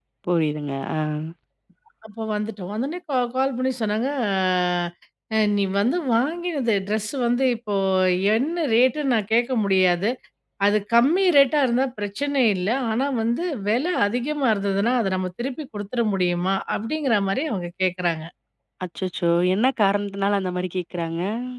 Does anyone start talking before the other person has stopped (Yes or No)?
No